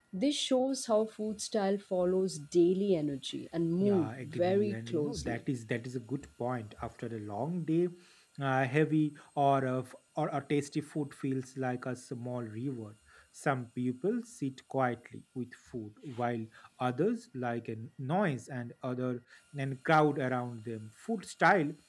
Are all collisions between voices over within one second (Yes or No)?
No